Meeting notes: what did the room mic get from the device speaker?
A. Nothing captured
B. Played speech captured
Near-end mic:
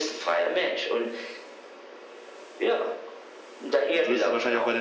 B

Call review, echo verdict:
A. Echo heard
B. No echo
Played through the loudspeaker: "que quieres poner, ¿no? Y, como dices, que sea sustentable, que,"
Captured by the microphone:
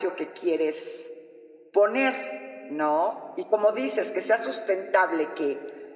A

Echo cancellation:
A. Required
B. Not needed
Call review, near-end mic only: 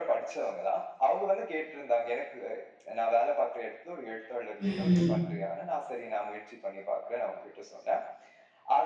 A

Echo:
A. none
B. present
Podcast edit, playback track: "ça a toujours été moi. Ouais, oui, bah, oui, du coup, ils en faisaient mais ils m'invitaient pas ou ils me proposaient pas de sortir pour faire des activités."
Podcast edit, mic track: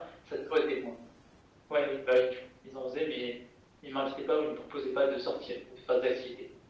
B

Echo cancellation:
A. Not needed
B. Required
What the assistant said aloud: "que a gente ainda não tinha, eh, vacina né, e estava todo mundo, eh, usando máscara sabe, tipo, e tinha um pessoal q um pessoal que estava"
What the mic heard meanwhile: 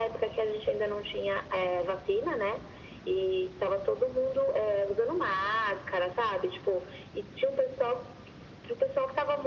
B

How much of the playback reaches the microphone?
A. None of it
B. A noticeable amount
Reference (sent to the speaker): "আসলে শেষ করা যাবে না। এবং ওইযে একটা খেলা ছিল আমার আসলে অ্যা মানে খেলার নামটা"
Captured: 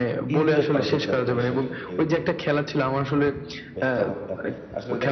B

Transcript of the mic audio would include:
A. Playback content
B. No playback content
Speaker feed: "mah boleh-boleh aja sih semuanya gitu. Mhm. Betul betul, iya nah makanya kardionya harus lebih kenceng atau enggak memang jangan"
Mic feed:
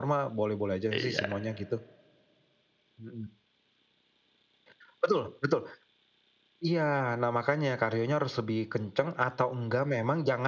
A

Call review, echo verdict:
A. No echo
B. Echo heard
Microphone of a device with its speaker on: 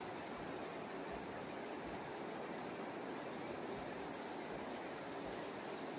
A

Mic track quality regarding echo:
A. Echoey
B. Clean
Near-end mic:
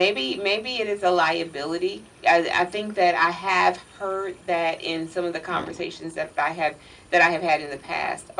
A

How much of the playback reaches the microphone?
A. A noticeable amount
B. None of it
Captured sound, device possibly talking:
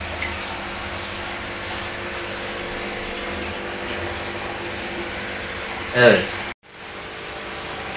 B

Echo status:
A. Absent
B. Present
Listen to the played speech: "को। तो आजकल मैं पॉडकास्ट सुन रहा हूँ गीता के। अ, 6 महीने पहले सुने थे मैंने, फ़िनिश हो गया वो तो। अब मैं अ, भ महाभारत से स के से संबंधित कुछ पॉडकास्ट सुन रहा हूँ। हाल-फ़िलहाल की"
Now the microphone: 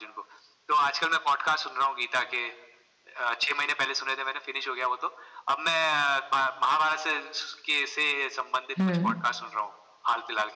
B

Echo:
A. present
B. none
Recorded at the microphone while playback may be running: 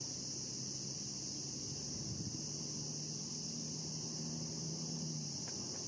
B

